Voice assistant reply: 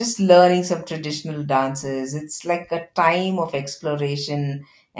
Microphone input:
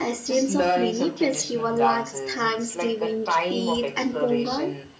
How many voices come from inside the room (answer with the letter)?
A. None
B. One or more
B